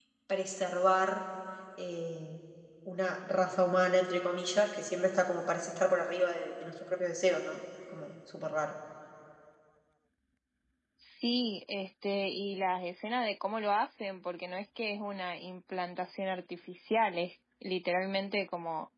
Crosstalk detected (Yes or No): No